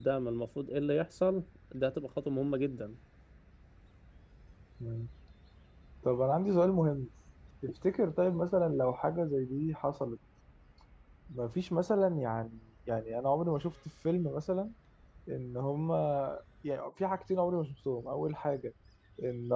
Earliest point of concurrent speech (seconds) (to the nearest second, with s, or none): none